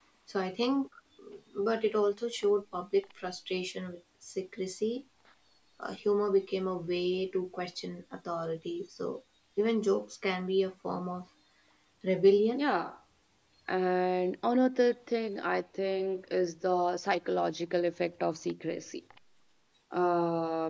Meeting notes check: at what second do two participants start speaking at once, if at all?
none

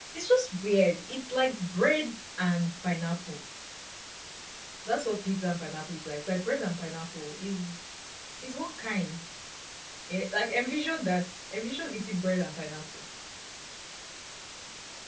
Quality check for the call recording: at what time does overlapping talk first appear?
none

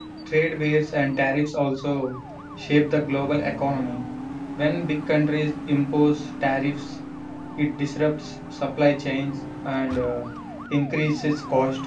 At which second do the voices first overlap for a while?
none

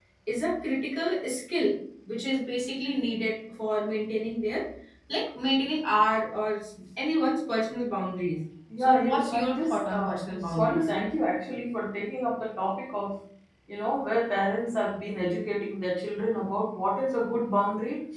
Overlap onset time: 8.7 s

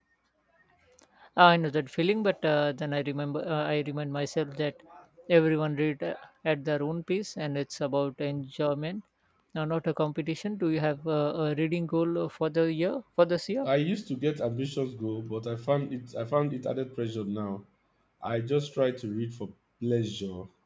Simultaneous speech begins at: none

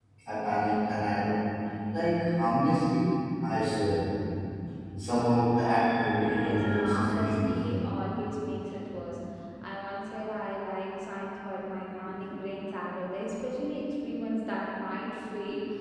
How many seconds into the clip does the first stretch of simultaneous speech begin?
6.2 s

